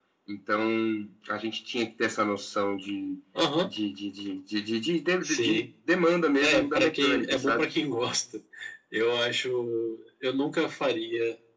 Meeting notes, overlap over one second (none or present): present